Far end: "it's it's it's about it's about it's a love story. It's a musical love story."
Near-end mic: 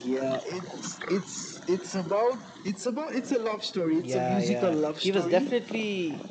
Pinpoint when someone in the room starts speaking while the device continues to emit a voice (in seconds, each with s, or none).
4.0 s